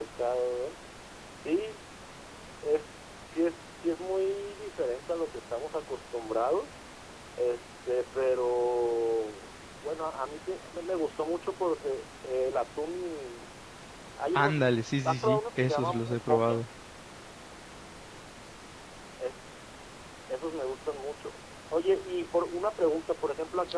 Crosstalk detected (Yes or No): Yes